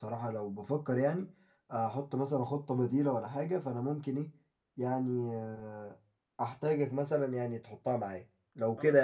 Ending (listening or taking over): taking over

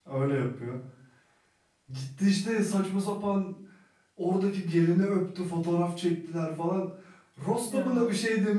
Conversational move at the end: listening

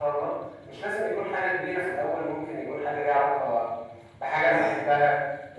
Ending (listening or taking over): listening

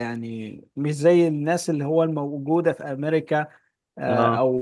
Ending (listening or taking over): listening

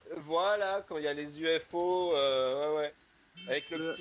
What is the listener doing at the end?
listening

